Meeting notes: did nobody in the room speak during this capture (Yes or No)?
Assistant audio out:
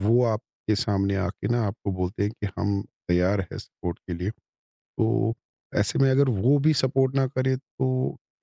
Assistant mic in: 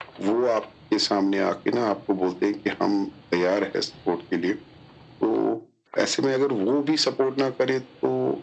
Yes